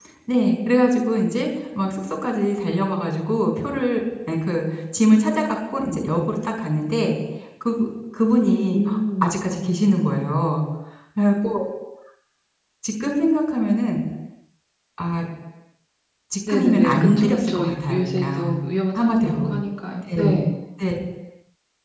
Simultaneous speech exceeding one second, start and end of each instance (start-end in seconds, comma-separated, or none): 16.5-18.5